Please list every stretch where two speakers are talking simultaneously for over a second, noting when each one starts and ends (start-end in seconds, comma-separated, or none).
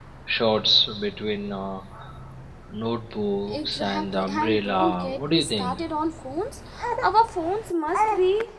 3.5-5.8